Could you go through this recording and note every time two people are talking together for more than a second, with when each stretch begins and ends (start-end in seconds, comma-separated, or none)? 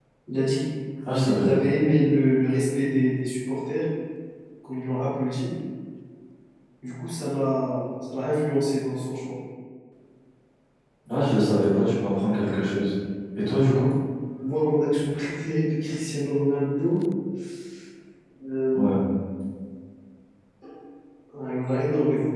none